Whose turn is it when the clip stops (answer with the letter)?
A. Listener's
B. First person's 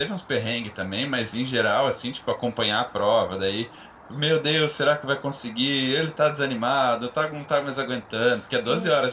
A